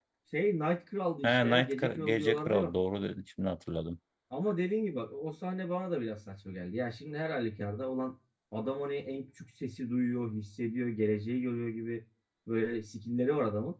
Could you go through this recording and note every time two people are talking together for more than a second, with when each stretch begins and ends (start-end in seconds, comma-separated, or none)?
1.2-2.7